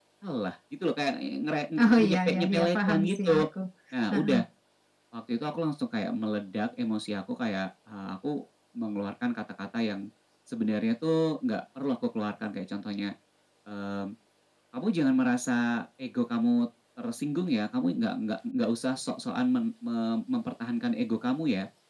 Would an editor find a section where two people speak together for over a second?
Yes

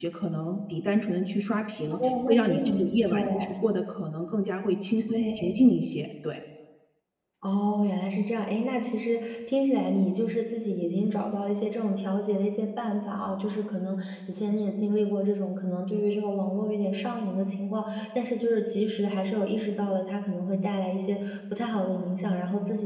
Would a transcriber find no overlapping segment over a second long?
No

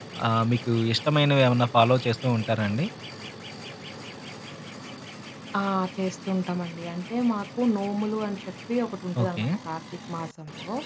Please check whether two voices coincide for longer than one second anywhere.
No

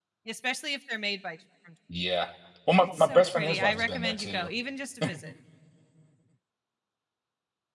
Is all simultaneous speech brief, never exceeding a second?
No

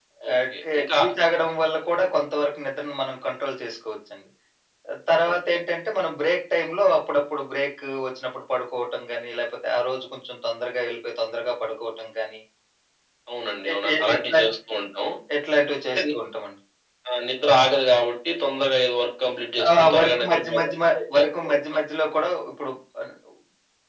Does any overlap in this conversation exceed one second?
Yes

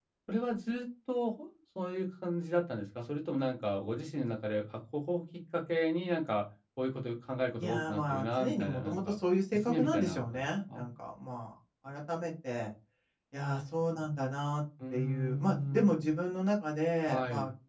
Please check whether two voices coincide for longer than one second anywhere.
Yes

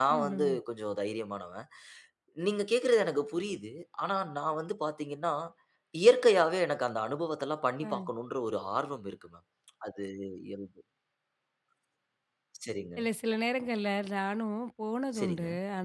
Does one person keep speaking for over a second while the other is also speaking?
No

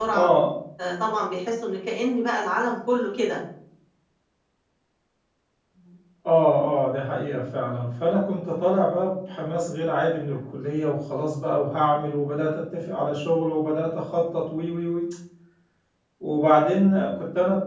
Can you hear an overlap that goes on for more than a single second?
No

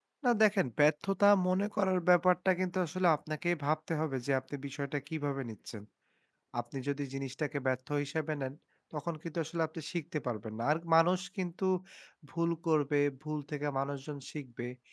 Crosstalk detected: No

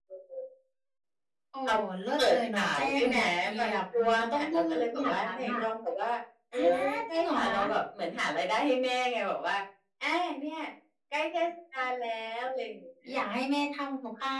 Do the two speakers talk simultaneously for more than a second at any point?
Yes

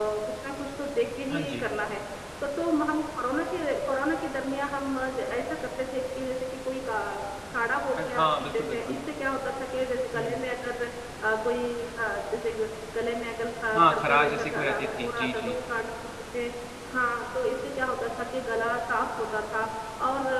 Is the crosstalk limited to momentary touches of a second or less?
No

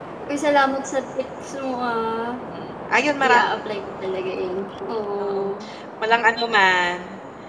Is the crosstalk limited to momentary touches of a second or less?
Yes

